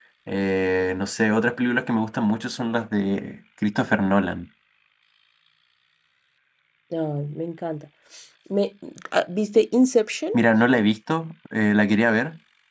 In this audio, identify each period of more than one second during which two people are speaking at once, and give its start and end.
none

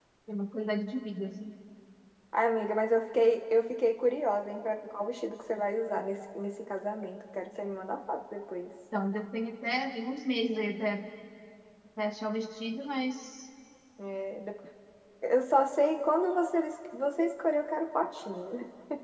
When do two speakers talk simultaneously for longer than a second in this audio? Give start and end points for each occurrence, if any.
none

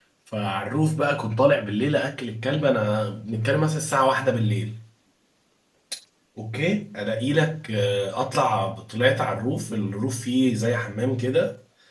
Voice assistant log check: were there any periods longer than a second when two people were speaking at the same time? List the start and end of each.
none

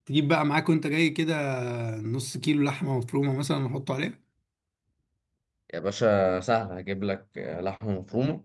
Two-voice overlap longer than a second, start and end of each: none

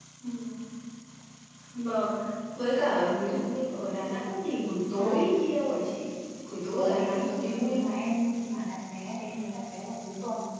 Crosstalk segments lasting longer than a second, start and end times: 6.5-7.9

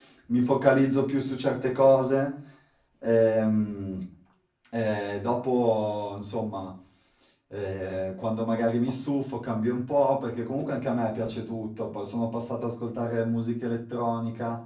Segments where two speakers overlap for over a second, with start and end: none

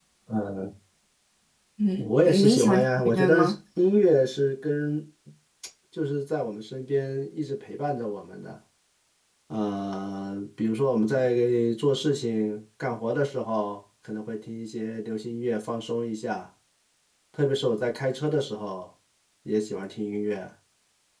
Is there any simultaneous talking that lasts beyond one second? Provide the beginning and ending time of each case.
2.0-3.5

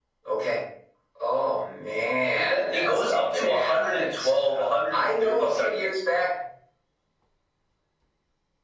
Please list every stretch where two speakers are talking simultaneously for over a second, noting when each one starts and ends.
2.4-5.9

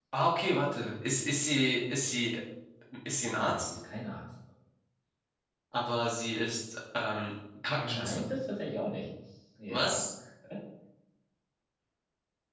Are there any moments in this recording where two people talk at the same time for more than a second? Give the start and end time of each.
none

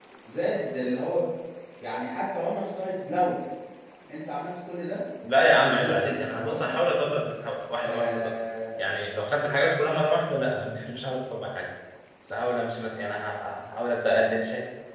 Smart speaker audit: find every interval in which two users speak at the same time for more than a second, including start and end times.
5.6-6.8

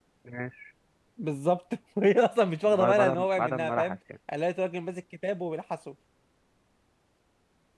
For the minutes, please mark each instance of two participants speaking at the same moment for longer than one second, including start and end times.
2.6-4.0

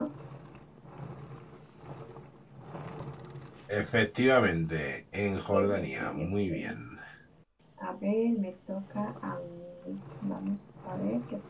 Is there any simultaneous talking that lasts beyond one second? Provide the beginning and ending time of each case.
5.5-6.8

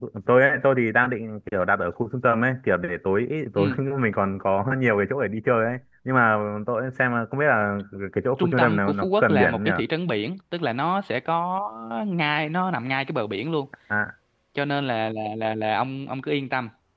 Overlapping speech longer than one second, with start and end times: 8.4-9.7

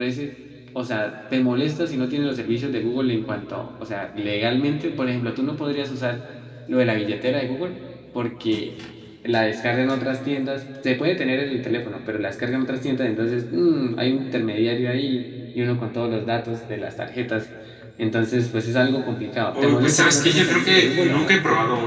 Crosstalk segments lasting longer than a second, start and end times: 19.6-21.4

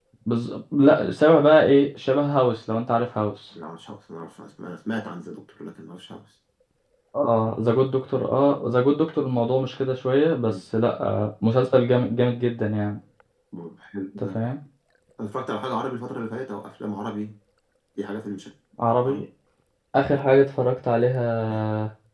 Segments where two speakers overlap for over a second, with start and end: none

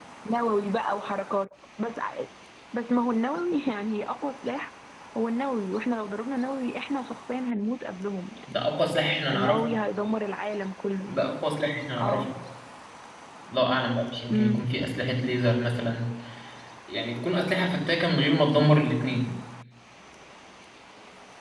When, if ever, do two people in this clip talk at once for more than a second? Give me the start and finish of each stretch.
none

